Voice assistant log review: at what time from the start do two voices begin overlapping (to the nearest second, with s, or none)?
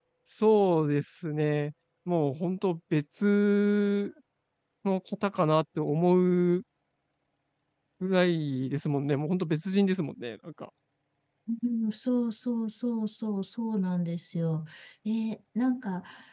none